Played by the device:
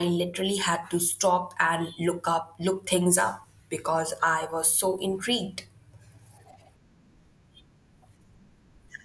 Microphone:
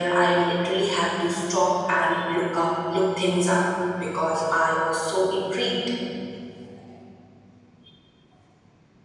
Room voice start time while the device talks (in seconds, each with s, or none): none